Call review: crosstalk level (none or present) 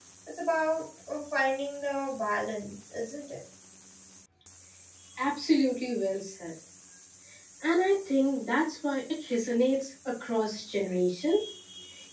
none